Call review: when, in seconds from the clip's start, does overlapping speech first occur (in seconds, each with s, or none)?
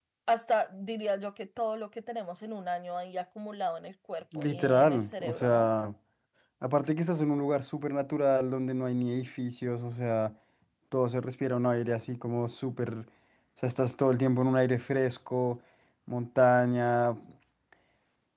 4.3 s